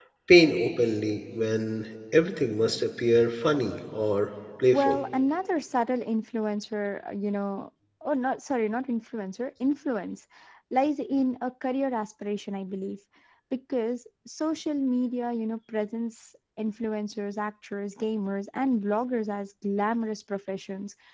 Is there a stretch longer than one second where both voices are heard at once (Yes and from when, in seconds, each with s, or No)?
No